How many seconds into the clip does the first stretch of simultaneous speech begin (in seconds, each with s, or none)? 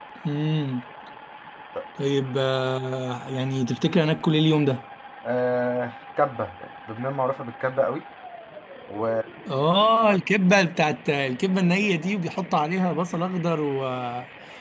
none